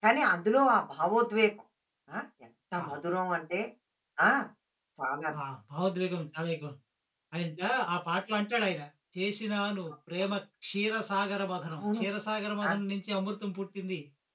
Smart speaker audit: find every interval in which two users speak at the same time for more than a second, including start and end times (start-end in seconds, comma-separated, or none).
none